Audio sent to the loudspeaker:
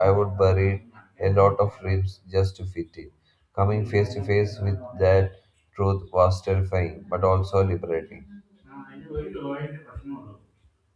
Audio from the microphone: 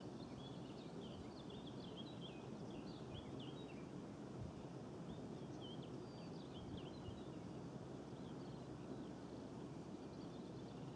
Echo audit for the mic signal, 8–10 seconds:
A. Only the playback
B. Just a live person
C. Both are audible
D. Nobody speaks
D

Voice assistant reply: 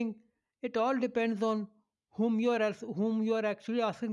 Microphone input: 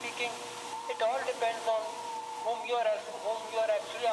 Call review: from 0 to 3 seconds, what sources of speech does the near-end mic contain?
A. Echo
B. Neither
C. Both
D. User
A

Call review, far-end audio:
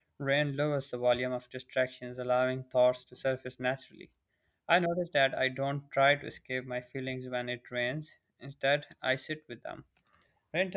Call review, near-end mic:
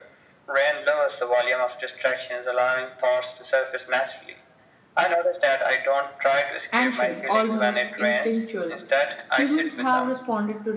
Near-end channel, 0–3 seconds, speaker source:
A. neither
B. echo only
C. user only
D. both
B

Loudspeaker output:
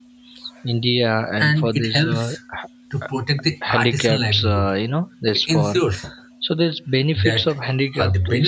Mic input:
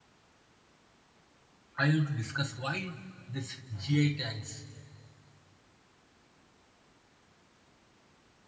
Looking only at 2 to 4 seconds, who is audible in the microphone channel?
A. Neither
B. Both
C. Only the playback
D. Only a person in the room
D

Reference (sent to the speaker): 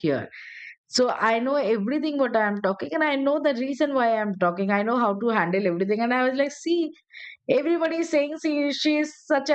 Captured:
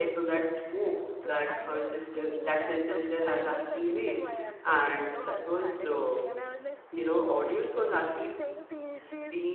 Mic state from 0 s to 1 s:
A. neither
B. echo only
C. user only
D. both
D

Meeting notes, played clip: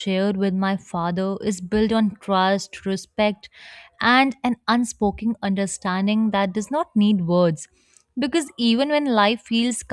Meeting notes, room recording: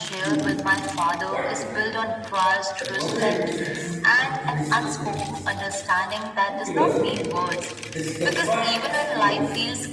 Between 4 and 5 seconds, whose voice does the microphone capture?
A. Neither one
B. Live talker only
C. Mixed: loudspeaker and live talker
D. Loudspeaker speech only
C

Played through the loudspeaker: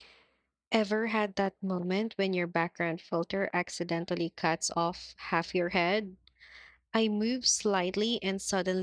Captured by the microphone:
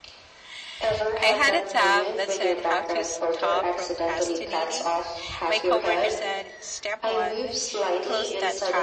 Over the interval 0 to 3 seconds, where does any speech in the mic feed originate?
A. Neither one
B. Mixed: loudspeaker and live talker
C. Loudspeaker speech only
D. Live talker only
B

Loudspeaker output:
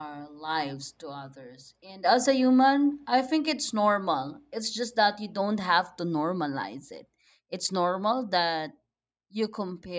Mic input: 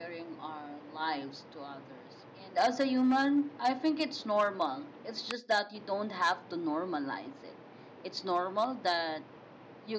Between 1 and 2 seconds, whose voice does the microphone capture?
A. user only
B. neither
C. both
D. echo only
D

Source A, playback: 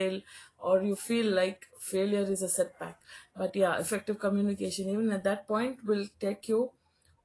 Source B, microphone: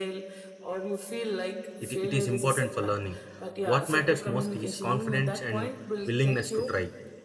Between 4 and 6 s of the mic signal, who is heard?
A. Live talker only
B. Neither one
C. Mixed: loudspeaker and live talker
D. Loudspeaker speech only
C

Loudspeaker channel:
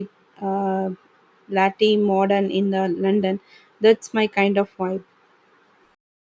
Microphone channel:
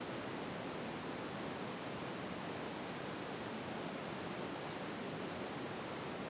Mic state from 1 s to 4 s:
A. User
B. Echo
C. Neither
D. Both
C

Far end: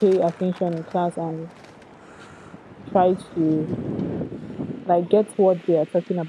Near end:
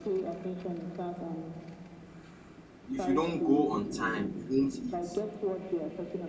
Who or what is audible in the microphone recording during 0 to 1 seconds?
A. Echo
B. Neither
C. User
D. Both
A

